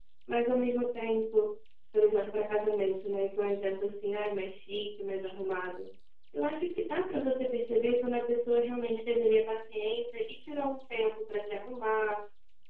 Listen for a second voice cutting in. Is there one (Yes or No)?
No